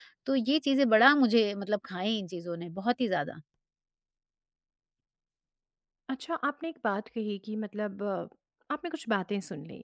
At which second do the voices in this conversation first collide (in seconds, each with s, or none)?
none